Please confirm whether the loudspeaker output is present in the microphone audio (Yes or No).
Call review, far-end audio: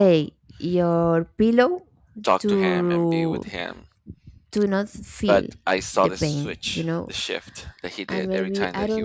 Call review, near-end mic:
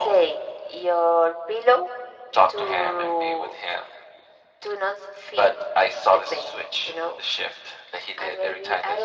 Yes